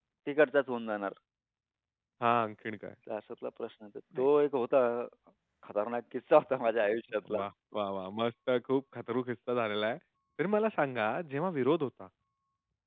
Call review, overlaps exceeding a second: none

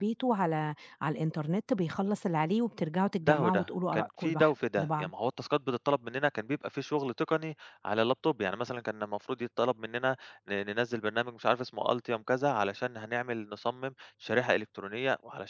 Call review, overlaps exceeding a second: present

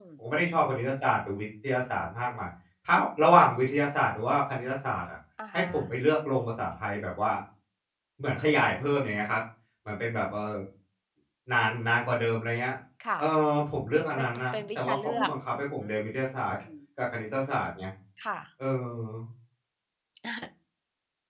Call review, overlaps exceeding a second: present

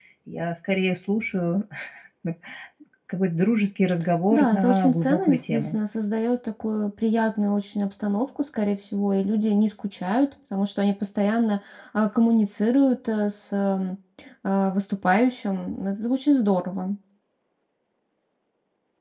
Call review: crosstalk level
present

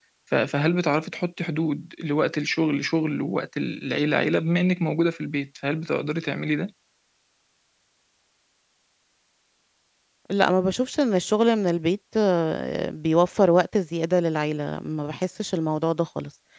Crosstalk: none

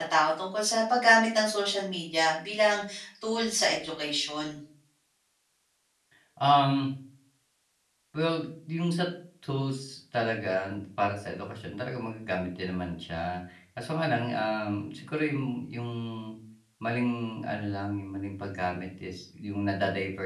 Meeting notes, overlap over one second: none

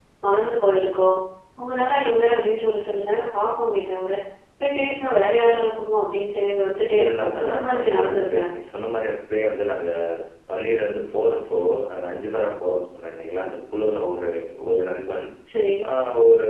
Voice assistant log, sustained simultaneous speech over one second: present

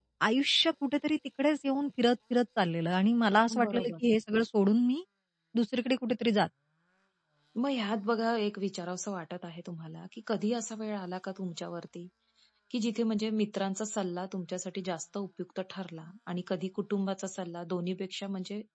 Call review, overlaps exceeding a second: none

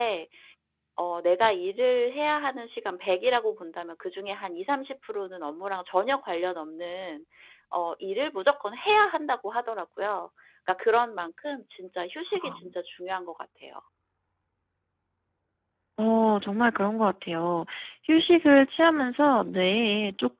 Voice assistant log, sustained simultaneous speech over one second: none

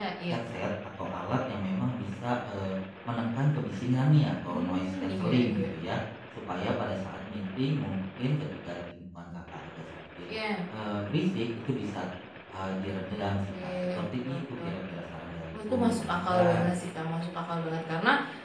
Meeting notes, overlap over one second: present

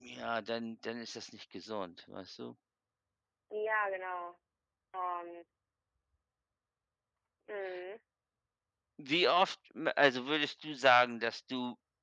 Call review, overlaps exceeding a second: none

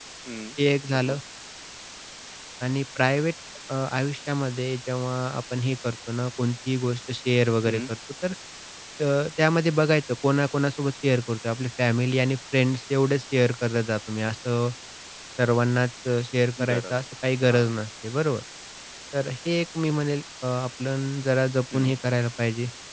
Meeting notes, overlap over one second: none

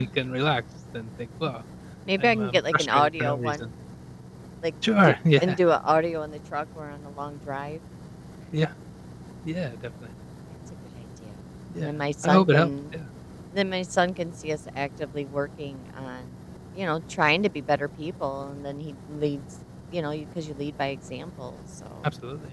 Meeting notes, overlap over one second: present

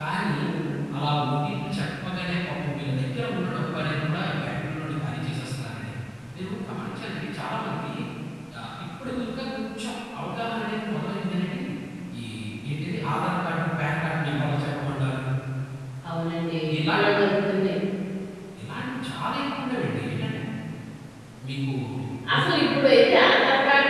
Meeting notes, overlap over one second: none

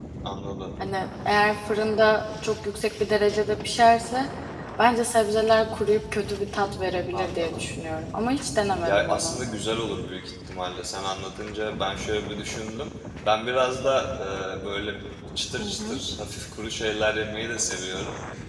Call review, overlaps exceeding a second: none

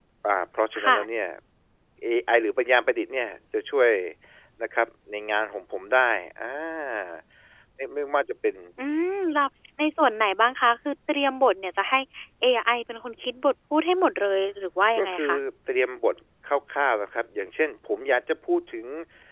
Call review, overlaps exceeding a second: none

